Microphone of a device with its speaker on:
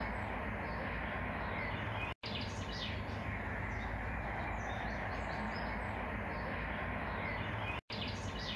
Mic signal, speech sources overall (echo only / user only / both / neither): neither